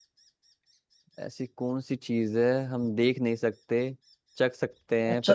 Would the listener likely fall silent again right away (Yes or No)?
No